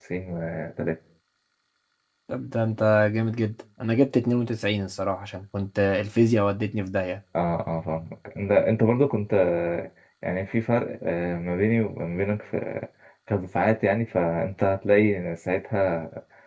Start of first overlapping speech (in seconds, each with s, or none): none